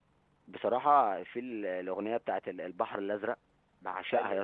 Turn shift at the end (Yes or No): No